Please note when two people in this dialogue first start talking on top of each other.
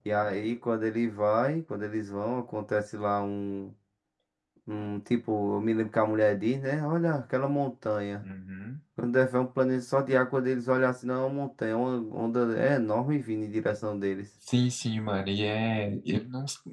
none

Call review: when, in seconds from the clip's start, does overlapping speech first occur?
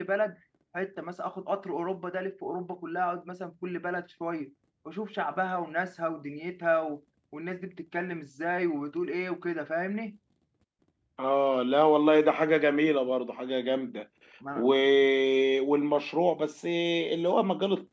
none

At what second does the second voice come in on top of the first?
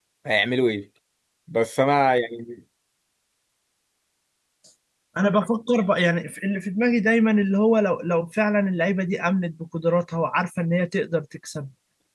none

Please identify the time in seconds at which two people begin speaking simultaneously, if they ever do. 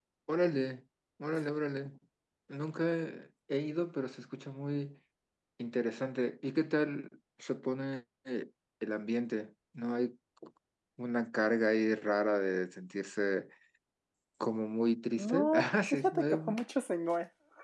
15 s

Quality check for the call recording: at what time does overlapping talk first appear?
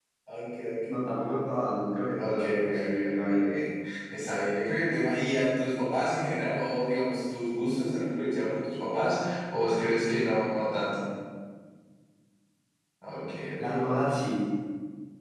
2 s

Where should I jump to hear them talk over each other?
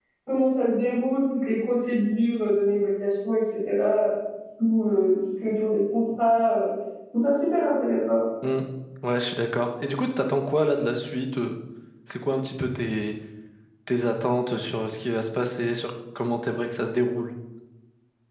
none

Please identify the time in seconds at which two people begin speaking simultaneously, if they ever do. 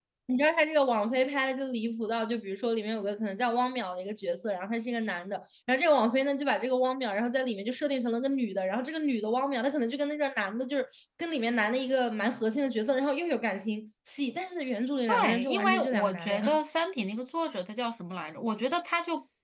15 s

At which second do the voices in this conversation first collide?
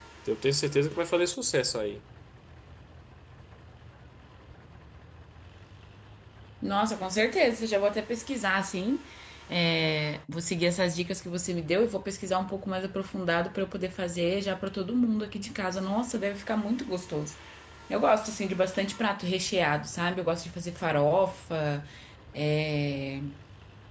none

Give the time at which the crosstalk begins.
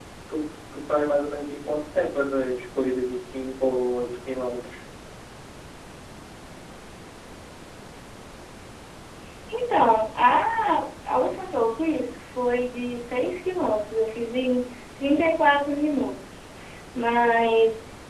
none

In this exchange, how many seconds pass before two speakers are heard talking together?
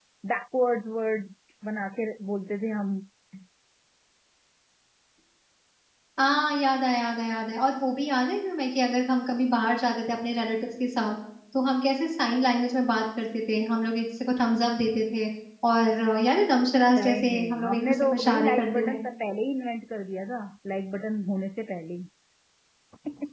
17 s

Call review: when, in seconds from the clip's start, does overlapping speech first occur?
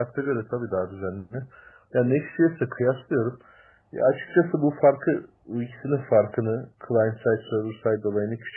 none

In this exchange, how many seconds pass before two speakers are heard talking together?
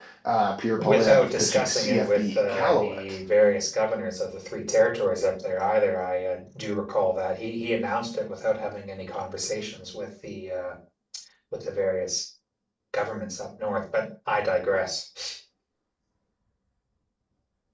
1 s

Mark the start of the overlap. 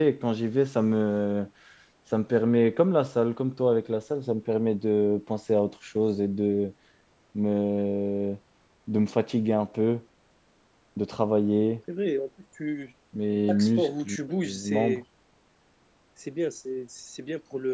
13 s

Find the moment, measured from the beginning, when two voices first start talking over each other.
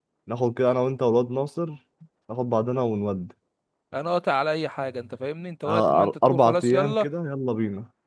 6 s

